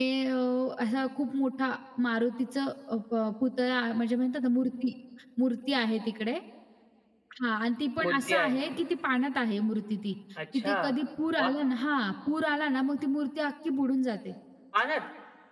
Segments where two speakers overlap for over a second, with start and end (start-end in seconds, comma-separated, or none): none